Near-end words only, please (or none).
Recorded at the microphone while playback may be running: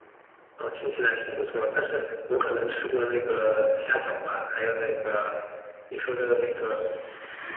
none